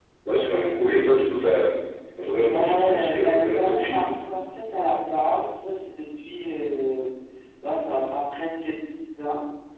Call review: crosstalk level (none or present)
present